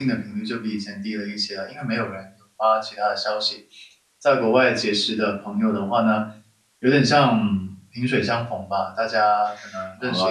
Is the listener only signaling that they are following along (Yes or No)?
No